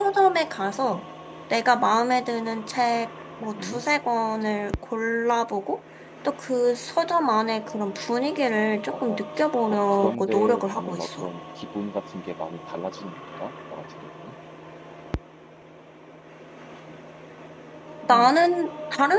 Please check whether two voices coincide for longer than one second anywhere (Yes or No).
Yes